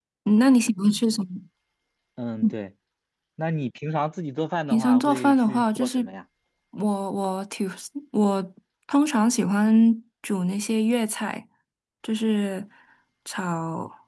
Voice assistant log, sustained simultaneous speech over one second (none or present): present